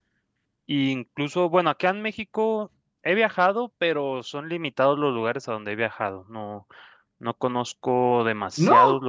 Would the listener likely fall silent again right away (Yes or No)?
Yes